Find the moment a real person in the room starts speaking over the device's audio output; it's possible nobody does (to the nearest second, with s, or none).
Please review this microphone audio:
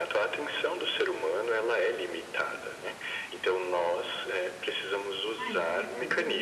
5 s